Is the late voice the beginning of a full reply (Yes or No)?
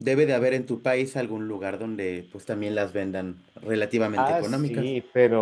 Yes